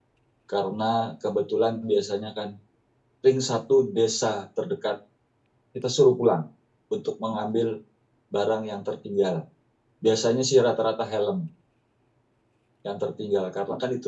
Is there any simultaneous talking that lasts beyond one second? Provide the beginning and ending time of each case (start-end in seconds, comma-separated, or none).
none